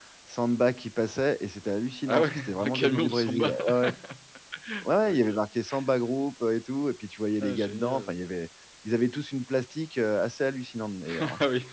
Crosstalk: present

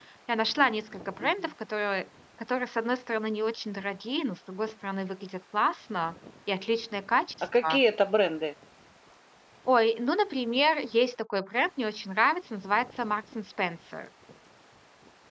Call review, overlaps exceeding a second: none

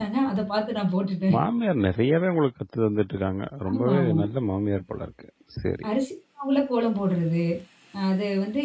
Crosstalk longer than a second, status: none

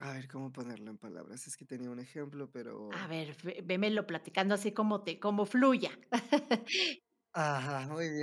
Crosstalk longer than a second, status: none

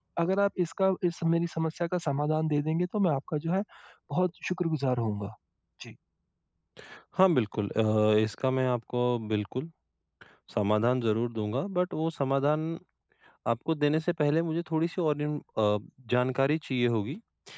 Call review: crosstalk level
none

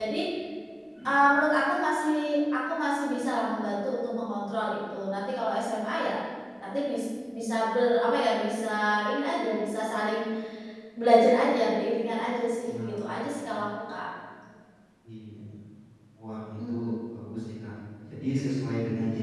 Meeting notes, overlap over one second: none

